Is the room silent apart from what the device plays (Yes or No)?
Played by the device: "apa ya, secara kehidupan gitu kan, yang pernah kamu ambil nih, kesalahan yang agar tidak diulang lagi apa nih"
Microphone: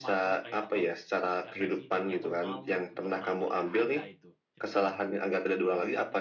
No